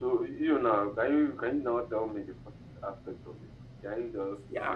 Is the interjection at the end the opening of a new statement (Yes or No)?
Yes